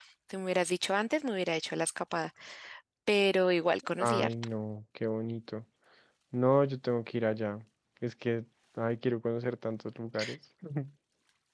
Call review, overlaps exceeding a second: none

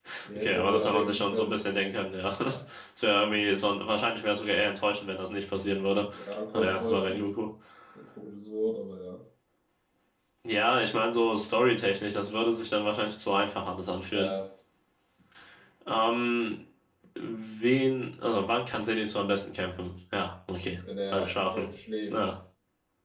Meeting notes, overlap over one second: present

